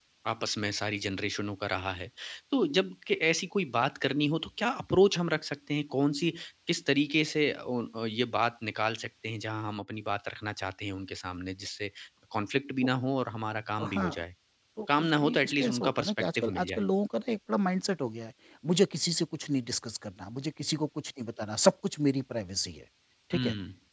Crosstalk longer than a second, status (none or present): present